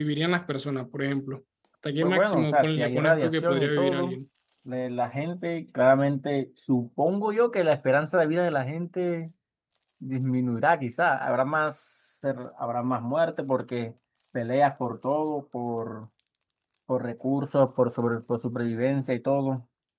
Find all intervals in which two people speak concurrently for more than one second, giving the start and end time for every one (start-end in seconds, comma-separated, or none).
2.0-4.2